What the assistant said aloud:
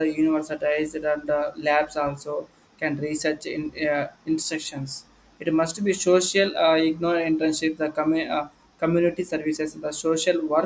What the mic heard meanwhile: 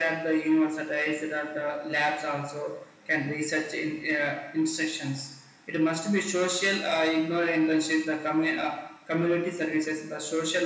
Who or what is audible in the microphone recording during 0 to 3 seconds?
echo only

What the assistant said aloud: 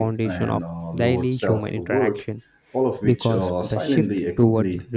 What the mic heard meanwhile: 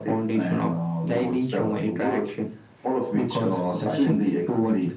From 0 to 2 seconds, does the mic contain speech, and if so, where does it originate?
echo only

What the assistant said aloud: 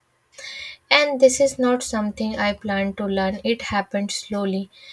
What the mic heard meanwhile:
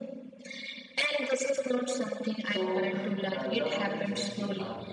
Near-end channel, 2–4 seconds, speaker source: both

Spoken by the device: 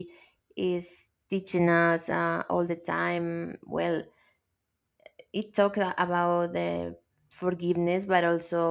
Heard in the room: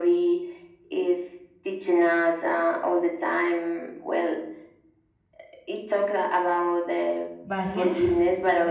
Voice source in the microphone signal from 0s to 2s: echo only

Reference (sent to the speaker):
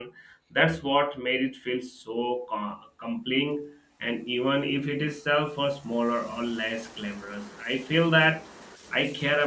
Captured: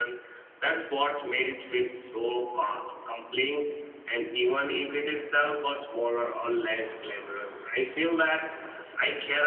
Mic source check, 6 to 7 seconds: echo only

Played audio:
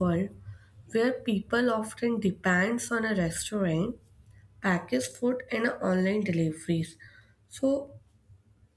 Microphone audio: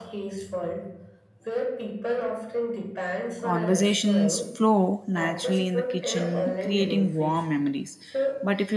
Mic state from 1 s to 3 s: echo only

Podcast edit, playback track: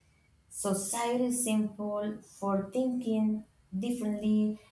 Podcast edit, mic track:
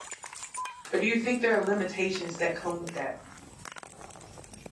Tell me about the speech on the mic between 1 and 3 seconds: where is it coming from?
user only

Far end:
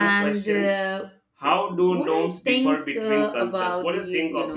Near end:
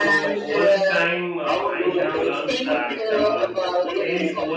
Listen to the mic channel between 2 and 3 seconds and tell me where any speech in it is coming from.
both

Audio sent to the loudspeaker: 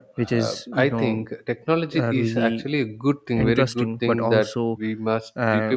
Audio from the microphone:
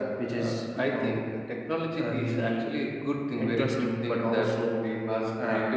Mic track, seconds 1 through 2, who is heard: echo only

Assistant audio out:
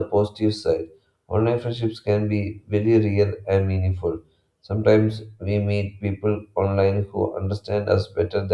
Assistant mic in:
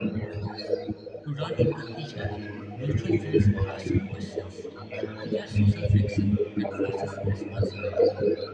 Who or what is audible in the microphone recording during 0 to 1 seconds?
echo only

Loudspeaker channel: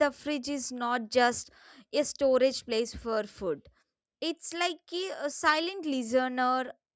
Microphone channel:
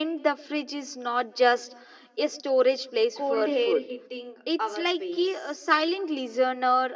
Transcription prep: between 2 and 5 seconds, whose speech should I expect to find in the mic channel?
both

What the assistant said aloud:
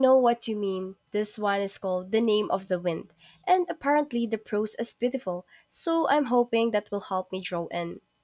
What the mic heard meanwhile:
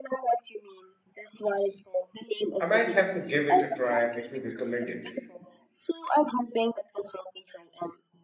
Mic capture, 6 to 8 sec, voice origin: echo only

